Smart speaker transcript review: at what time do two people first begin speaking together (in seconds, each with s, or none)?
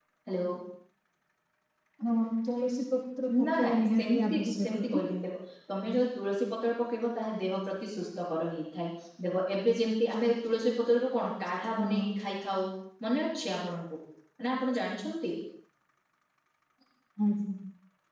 3.4 s